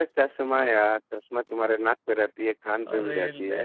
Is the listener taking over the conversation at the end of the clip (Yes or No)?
No